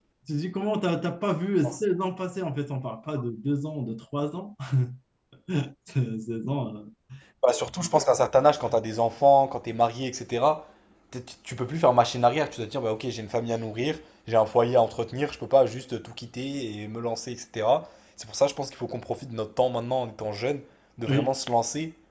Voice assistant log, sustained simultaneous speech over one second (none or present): none